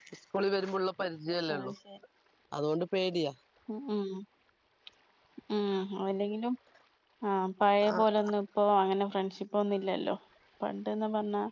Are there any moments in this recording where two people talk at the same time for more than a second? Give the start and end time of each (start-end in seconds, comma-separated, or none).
none